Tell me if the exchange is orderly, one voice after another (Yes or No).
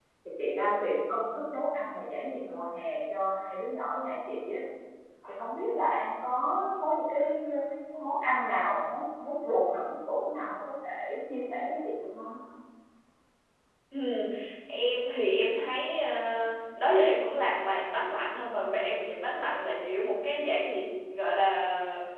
Yes